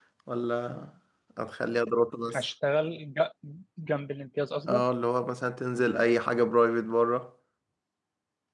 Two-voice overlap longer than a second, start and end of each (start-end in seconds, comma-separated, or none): none